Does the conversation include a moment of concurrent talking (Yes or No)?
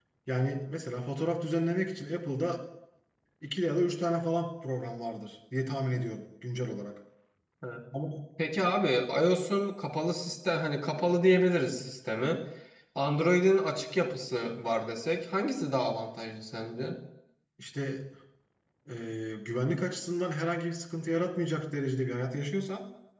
No